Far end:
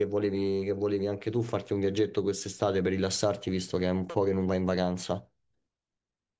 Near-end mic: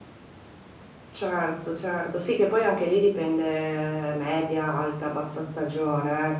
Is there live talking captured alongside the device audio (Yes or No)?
Yes